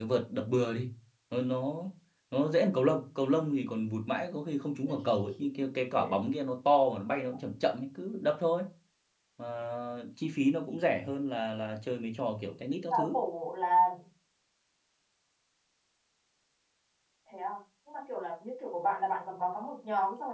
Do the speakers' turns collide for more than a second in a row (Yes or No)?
No